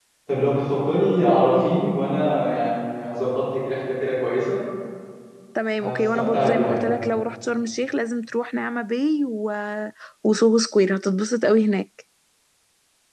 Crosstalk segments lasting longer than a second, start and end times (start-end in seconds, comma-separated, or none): 5.8-7.0